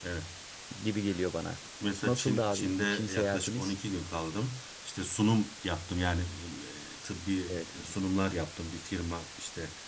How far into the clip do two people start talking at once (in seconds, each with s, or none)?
2.0 s